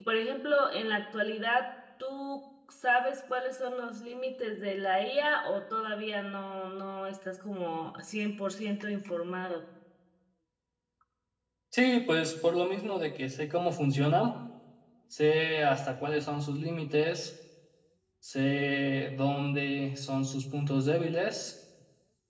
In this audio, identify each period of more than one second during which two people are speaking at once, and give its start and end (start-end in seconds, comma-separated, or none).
none